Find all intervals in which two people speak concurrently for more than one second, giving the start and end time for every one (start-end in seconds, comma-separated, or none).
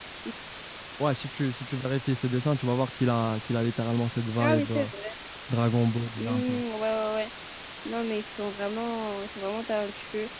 none